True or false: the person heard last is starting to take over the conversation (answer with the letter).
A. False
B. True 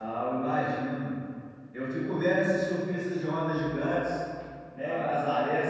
B